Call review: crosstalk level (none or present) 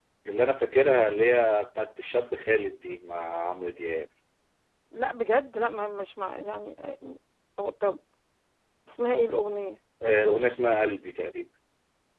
none